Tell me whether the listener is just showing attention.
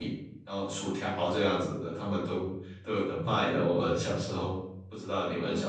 No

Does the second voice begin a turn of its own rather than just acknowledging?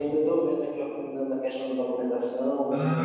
Yes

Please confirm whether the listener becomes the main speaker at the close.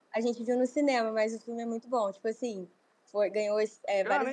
Yes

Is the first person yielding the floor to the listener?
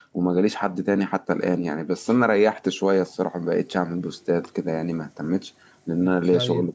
Yes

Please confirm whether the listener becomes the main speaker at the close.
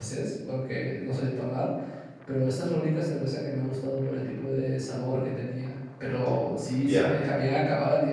No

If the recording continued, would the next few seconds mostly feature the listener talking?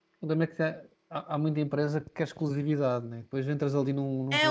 Yes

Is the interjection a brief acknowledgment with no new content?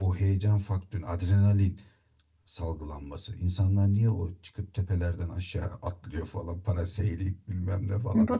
No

